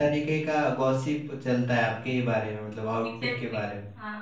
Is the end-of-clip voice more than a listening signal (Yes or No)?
Yes